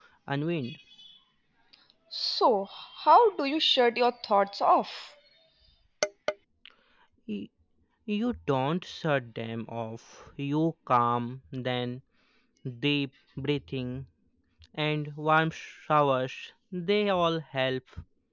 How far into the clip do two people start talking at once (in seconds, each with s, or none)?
none